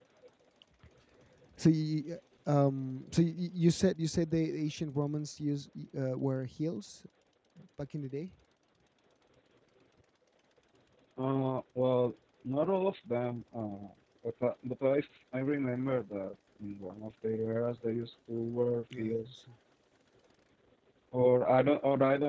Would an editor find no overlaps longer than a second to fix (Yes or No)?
Yes